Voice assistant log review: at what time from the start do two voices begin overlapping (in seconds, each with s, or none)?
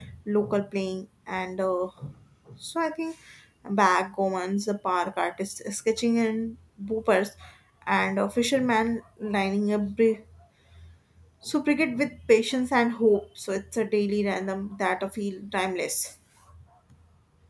none